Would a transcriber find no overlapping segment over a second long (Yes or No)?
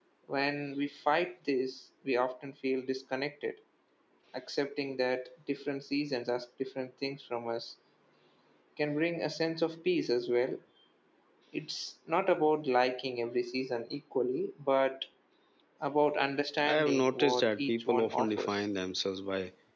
No